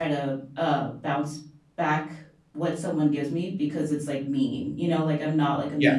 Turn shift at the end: No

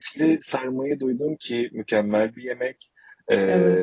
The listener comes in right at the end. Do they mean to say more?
No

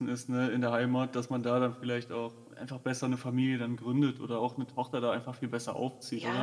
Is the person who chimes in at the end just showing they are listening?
No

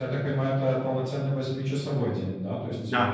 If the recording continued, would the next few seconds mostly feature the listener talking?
No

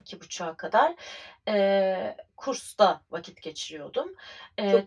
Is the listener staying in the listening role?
No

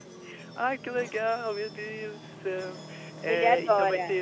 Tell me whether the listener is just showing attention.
Yes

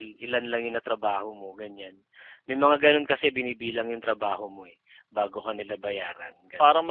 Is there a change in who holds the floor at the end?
Yes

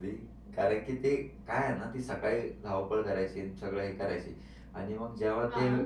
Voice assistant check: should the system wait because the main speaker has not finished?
Yes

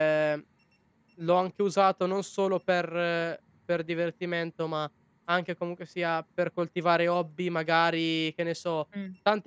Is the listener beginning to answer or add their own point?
No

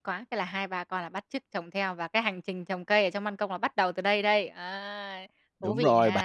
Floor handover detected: Yes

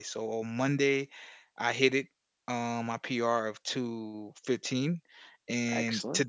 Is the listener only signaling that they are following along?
Yes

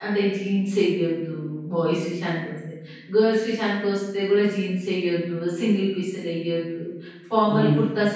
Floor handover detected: No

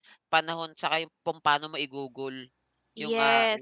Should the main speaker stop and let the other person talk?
Yes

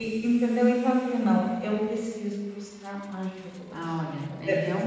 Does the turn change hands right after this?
Yes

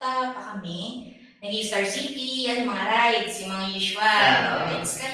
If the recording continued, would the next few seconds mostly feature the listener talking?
No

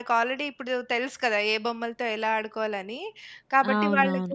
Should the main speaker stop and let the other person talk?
No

